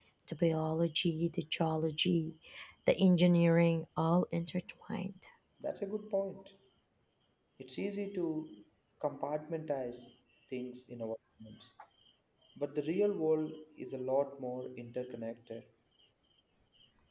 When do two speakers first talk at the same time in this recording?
none

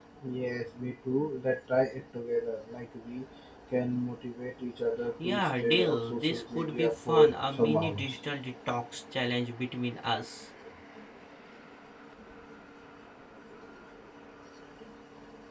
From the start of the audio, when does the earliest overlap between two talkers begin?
5.2 s

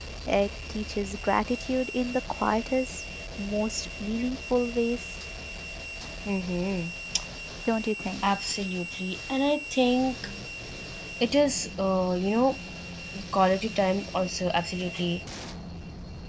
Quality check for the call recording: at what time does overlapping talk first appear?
none

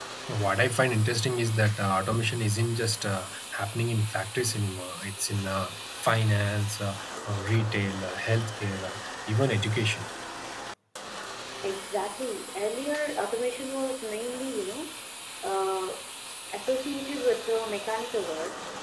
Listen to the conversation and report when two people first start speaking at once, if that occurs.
none

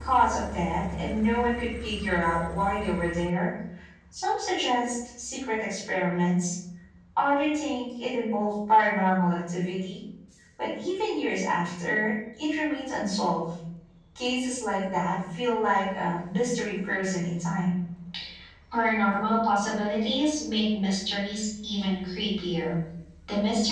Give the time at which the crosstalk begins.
none

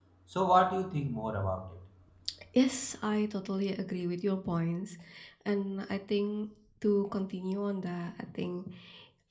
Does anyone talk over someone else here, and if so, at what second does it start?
none

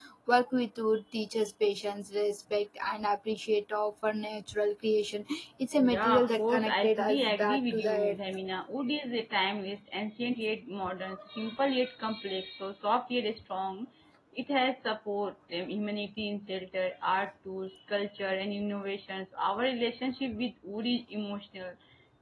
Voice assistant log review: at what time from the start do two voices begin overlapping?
5.8 s

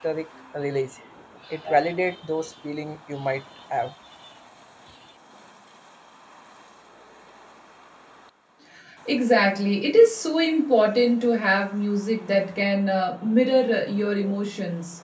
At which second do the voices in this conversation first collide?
none

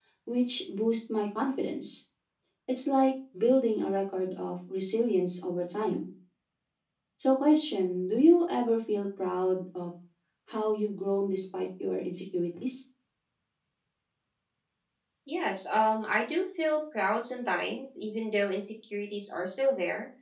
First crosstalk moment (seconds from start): none

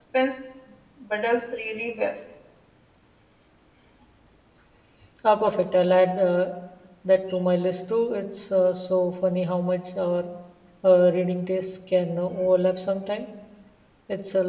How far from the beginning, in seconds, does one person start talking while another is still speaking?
none

